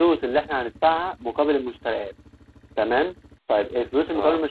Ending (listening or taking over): listening